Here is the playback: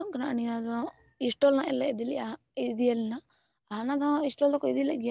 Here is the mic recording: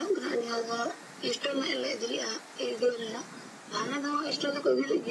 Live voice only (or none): none